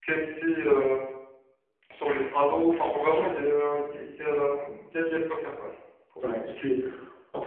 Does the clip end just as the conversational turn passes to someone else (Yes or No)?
Yes